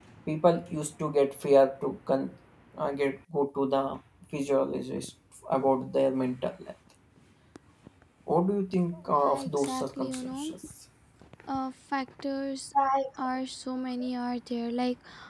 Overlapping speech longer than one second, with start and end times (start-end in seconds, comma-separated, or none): 9.2-10.5